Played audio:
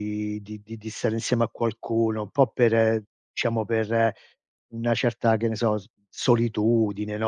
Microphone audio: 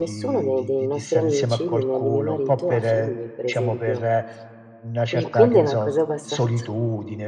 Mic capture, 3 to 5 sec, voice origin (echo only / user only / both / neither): both